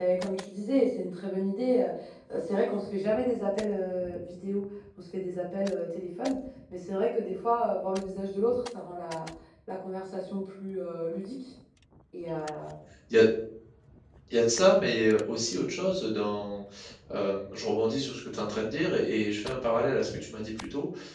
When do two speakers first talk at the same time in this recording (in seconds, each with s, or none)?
none